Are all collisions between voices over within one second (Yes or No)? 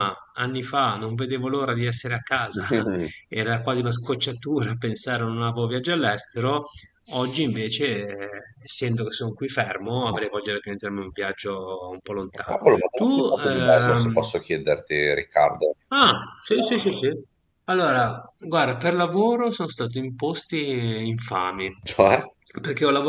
No